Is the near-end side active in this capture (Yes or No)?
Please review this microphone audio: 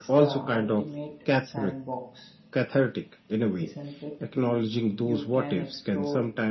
Yes